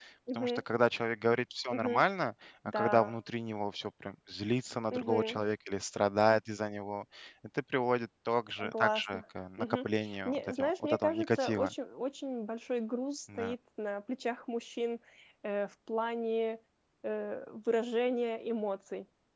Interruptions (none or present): present